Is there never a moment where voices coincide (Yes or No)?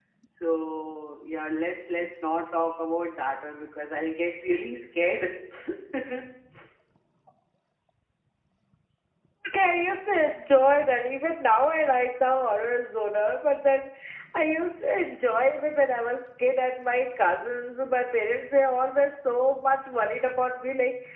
Yes